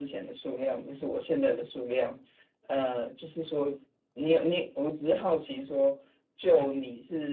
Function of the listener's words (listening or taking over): listening